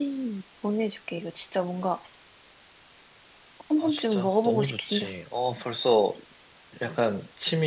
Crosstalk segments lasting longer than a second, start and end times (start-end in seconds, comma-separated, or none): 3.8-5.2